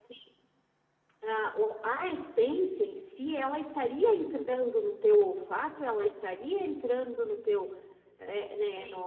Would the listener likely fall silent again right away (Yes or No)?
No